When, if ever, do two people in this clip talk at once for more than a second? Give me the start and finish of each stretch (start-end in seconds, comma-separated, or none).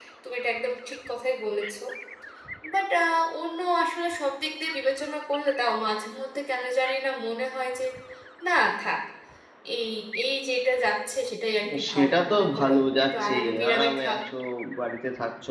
11.9-14.2